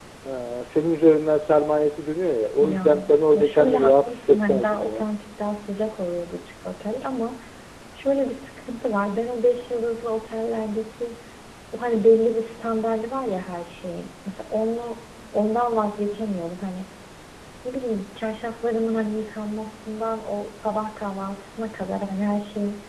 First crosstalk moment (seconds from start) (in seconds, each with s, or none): 2.6 s